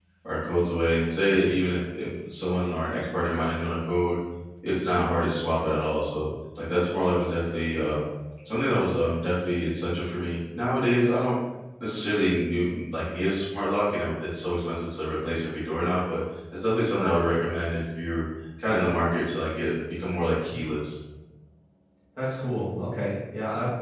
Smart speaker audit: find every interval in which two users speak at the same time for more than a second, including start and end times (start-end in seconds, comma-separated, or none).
none